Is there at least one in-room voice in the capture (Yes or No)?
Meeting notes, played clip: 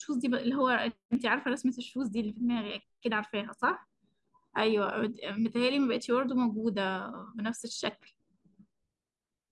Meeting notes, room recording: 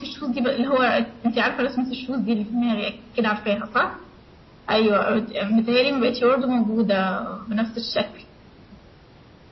No